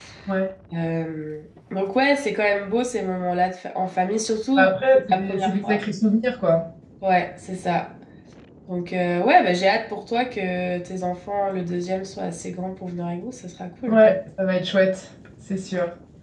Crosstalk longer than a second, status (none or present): present